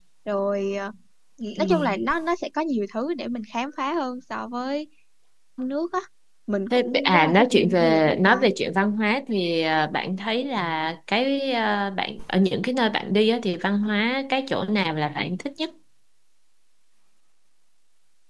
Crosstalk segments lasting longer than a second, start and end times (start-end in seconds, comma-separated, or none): 6.7-8.5